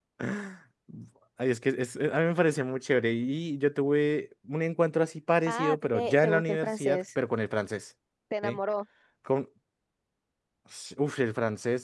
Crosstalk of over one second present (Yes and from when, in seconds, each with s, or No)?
Yes, from 5.5 s